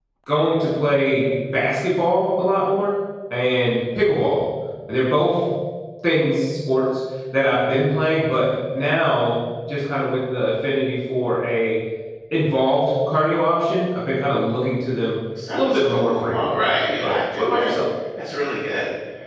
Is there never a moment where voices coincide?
No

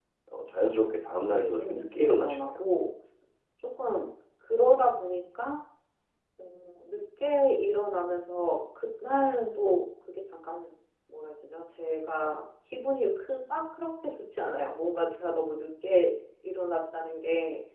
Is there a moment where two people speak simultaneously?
Yes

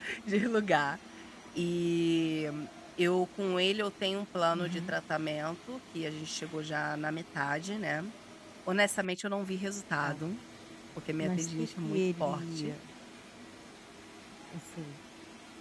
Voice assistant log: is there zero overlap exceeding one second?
No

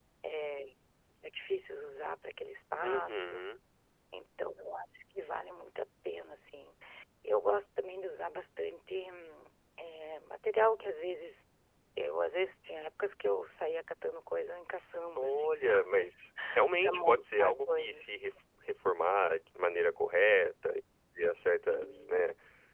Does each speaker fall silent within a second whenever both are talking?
No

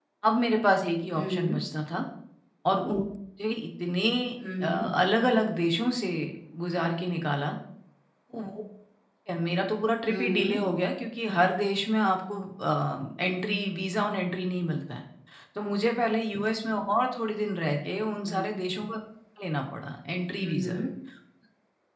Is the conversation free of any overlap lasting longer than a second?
Yes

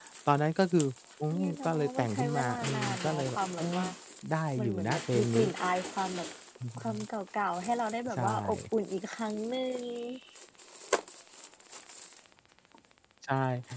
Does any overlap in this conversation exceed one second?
Yes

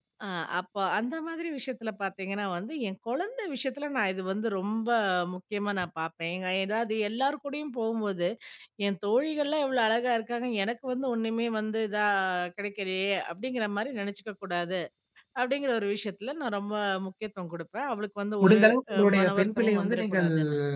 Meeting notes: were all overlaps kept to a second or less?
No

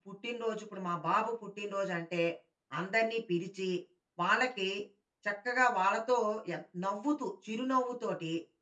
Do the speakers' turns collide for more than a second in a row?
No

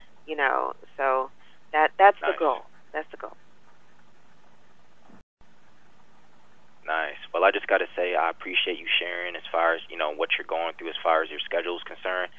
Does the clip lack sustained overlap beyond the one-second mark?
Yes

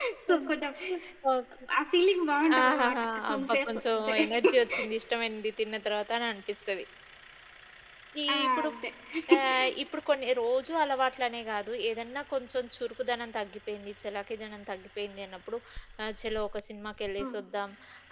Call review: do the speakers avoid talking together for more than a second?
No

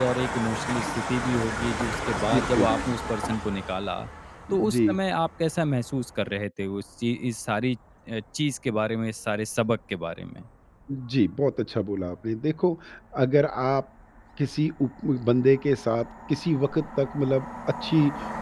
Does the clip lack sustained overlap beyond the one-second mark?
Yes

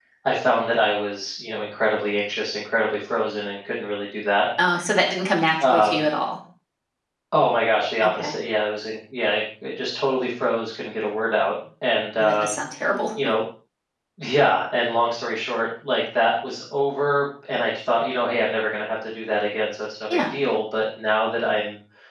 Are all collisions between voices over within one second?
Yes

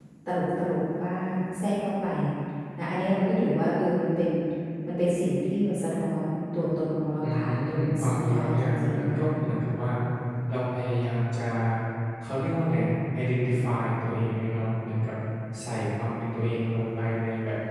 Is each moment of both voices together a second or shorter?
No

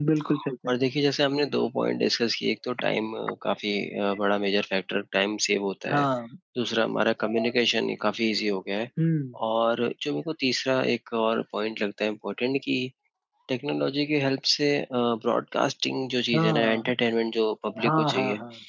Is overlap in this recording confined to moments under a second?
Yes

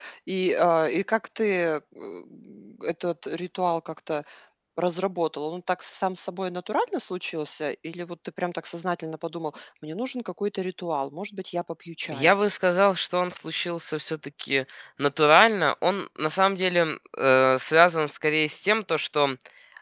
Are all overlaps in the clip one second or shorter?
Yes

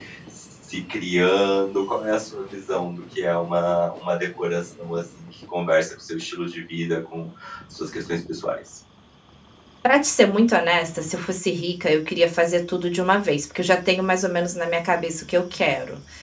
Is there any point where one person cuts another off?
No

